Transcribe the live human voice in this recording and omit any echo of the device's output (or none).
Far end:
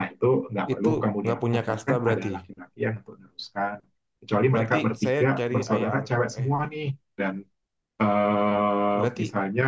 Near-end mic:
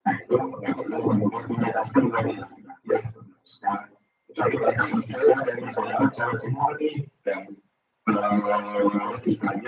none